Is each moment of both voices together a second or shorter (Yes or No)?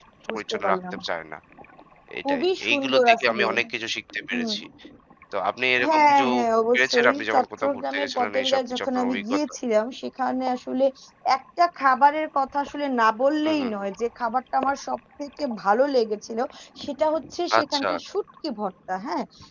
No